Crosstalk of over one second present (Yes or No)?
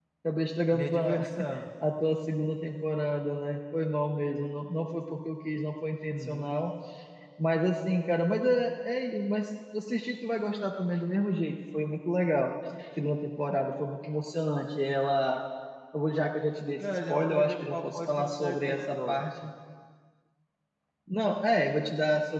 Yes